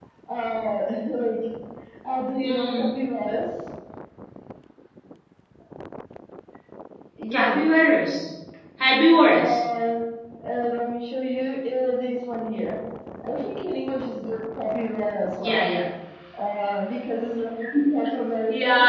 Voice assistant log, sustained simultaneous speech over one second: none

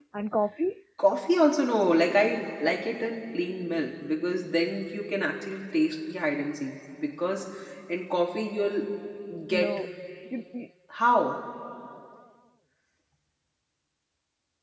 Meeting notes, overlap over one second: none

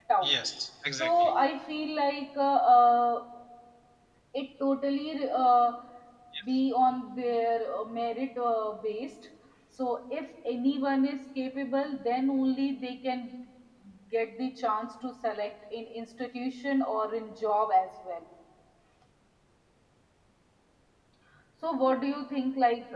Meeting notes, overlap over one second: none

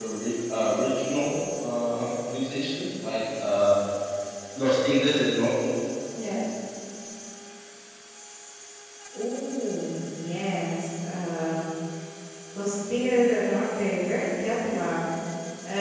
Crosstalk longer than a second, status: none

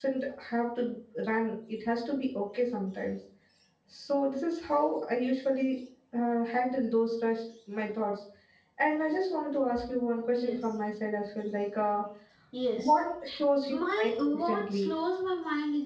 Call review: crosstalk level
present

